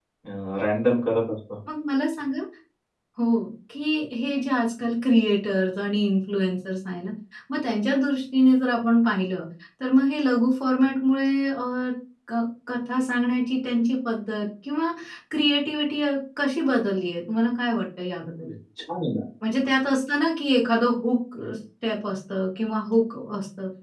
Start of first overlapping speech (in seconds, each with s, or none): none